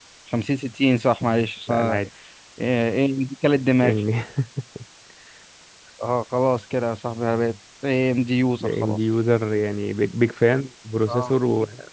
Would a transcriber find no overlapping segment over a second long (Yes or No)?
Yes